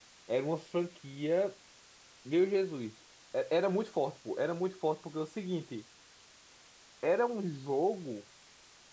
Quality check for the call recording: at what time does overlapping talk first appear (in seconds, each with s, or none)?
none